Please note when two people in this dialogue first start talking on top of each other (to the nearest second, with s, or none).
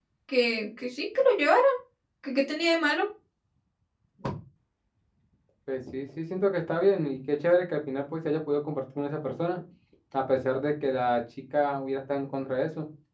none